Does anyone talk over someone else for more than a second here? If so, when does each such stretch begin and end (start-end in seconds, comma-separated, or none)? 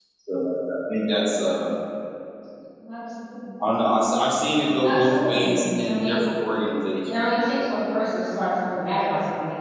4.8-6.3